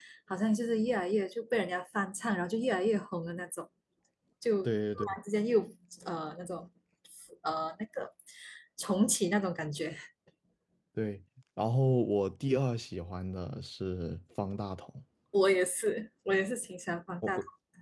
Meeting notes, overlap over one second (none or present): none